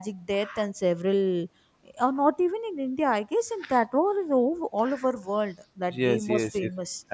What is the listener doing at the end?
taking over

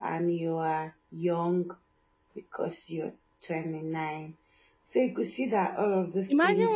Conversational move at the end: taking over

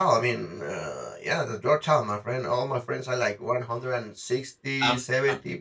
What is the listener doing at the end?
listening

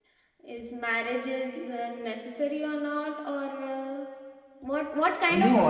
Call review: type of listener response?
taking over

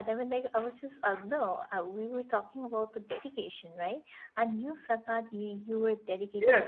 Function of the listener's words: taking over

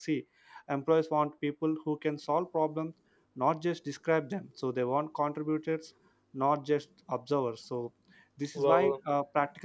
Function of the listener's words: listening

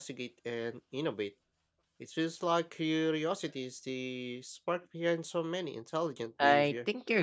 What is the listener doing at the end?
taking over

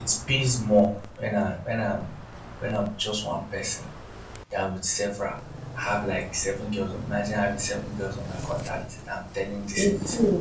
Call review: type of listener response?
listening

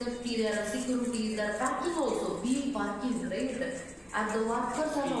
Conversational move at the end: taking over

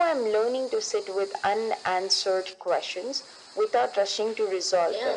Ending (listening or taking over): taking over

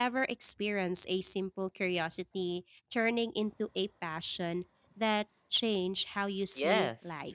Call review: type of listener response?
taking over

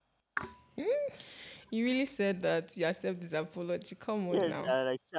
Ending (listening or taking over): taking over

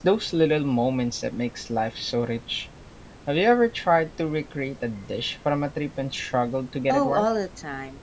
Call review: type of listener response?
taking over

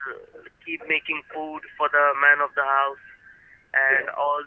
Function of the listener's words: listening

